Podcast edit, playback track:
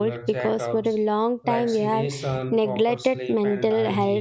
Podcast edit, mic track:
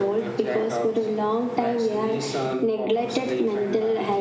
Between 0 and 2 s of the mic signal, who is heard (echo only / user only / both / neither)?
echo only